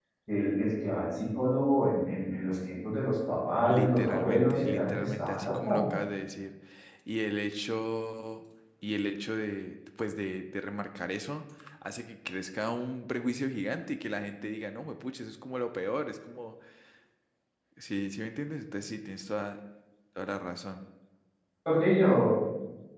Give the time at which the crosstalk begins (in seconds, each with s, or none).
3.6 s